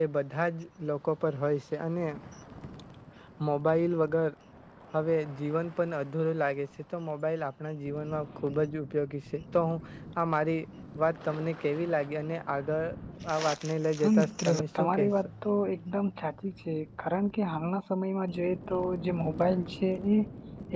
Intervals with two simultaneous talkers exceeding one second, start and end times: 14.0-15.3

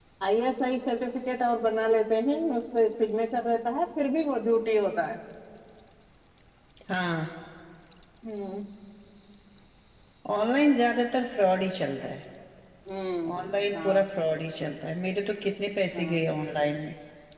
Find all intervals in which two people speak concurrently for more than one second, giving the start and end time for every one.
none

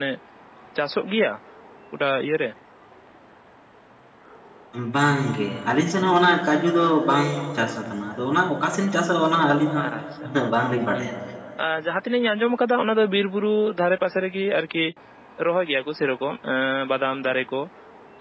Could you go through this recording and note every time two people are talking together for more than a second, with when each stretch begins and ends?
none

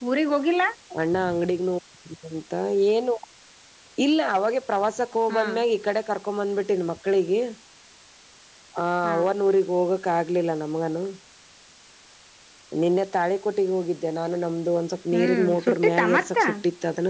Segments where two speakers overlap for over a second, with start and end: 15.1-16.4

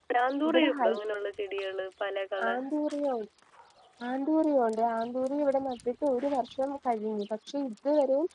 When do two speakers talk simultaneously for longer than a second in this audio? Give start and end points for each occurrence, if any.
none

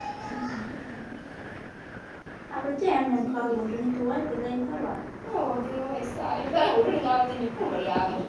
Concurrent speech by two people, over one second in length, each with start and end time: none

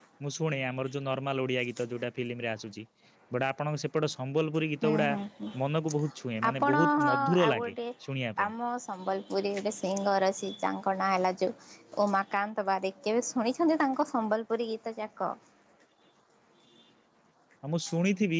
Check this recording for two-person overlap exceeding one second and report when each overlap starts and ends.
6.5-7.7

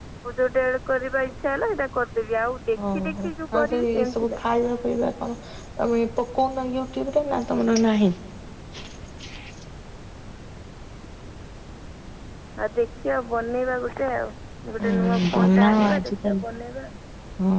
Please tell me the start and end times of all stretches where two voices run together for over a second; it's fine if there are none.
2.9-4.4, 14.9-16.4

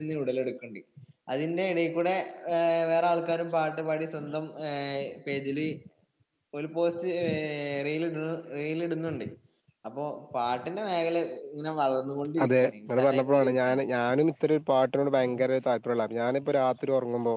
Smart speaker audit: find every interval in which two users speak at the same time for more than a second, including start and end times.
12.4-13.8

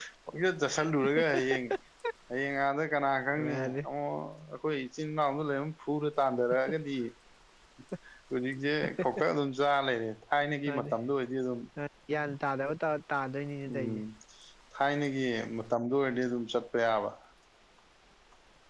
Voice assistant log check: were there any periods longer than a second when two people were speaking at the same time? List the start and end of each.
none

